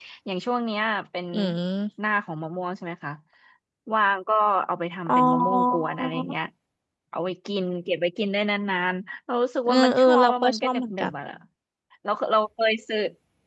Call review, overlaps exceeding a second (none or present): present